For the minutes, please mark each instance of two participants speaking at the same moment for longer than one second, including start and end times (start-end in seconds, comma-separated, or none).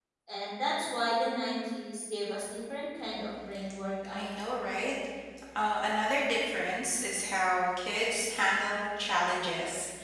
none